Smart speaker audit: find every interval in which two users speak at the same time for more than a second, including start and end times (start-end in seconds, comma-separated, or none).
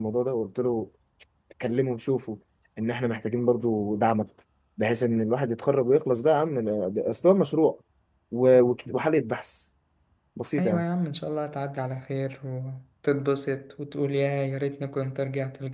none